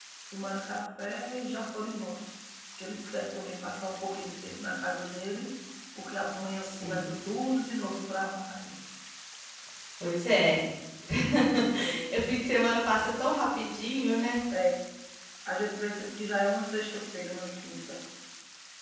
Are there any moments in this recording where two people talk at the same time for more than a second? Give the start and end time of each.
none

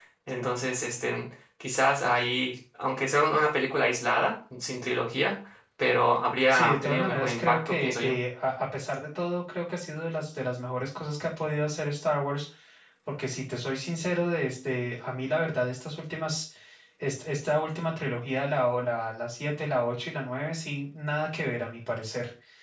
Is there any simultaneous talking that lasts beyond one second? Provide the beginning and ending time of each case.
6.5-8.2

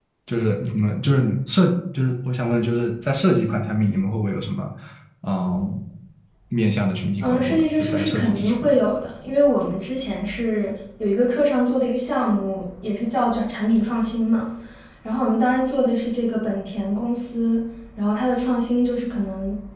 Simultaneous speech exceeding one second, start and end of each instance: 7.2-8.7

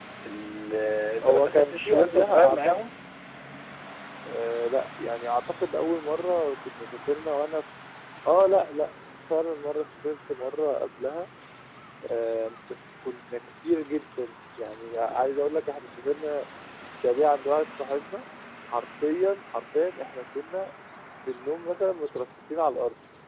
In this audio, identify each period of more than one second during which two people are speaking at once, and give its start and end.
1.2-2.7

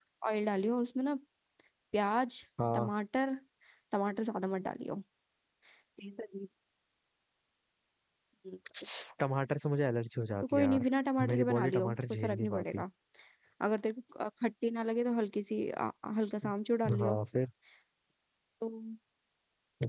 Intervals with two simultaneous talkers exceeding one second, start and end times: 11.3-12.8

